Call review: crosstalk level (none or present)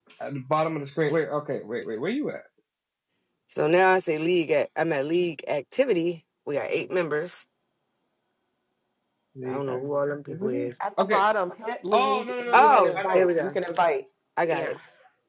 present